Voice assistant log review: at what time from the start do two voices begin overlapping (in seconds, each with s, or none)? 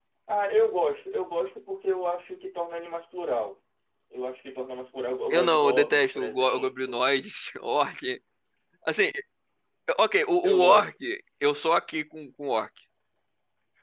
5.3 s